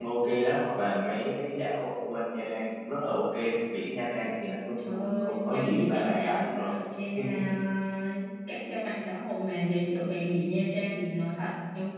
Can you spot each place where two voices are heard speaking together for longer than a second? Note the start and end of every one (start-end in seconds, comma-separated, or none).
4.8-6.7